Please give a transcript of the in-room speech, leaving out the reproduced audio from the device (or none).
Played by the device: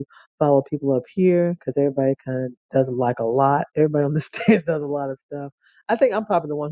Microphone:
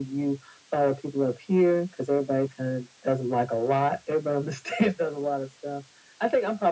none